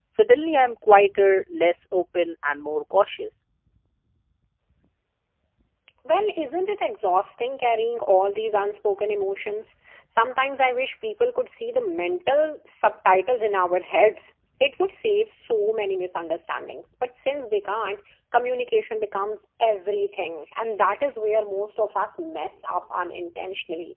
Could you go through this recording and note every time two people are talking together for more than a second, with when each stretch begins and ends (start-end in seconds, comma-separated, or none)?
none